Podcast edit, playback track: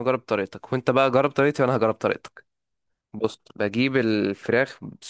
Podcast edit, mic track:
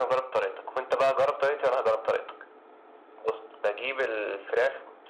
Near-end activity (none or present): none